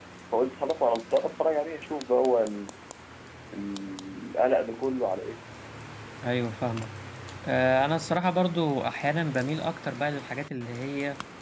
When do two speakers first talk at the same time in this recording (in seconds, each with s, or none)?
none